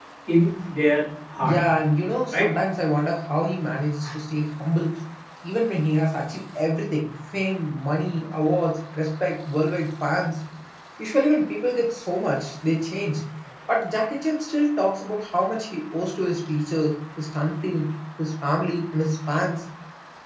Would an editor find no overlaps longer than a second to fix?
Yes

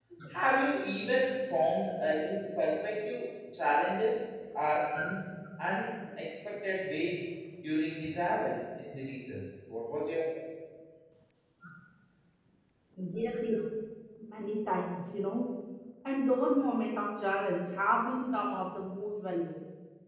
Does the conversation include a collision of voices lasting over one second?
No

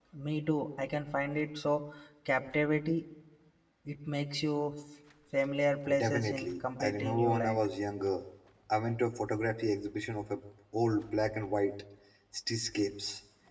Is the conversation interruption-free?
No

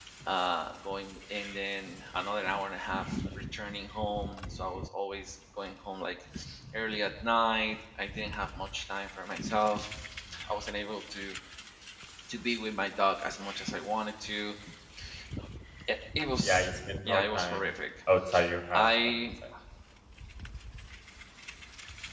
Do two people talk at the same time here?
Yes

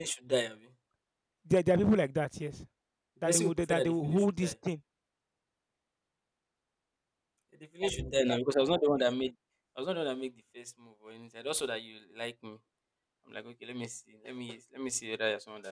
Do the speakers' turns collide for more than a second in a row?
Yes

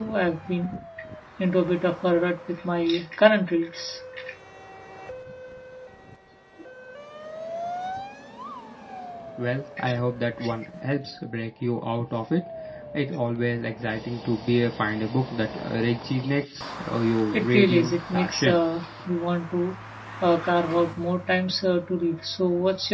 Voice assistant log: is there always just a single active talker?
No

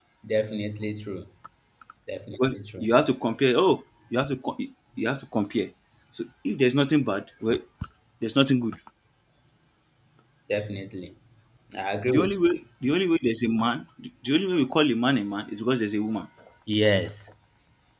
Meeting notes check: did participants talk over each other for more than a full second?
No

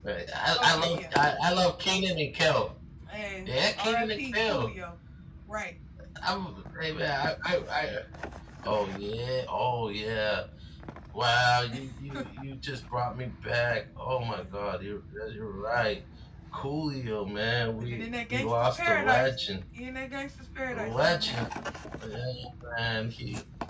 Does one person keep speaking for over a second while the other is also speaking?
Yes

